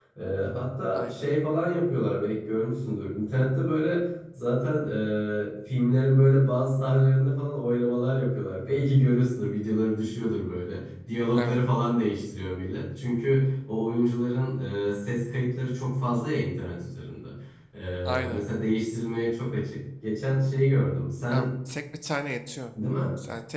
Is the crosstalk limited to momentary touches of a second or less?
Yes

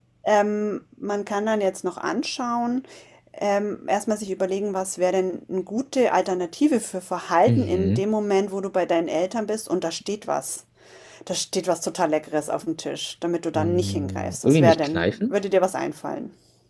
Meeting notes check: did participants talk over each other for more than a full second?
Yes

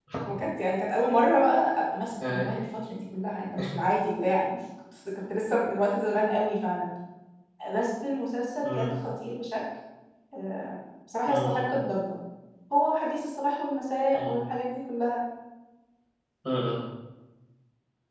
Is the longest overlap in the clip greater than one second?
No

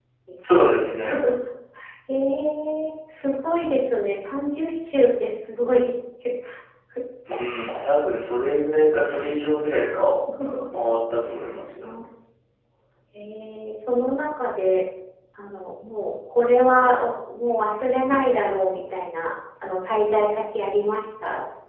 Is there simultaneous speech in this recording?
No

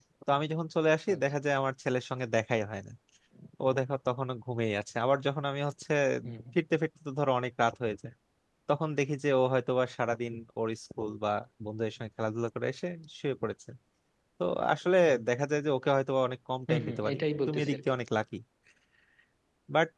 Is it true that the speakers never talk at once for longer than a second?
No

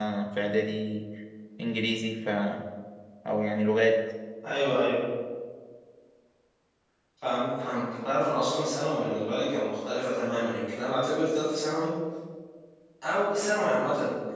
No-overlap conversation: Yes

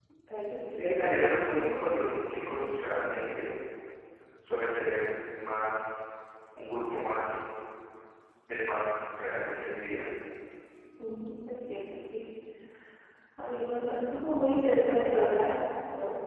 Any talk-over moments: Yes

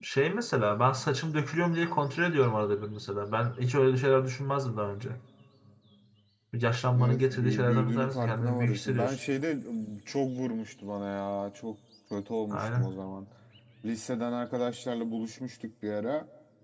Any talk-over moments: Yes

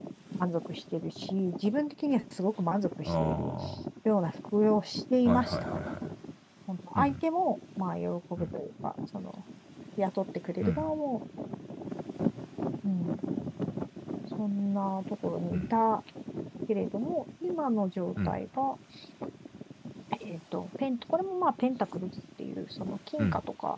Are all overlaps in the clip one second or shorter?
Yes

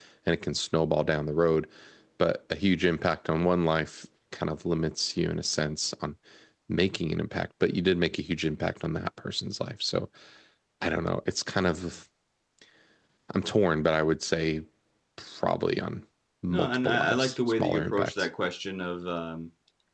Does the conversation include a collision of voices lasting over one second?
Yes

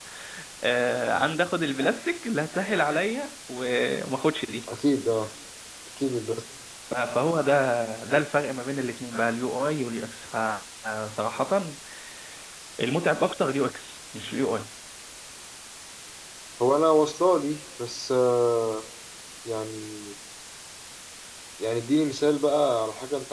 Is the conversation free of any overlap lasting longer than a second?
Yes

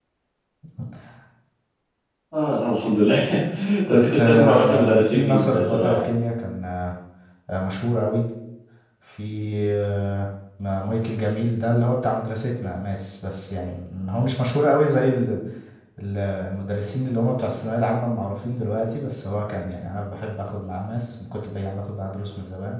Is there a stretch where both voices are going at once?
Yes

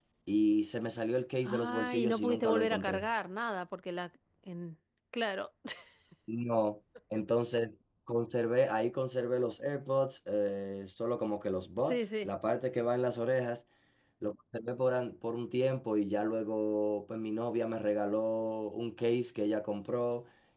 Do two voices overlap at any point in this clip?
Yes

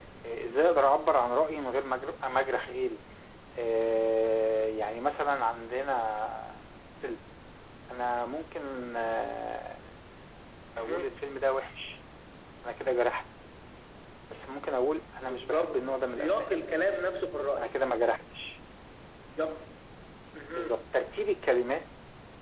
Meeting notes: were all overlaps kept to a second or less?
No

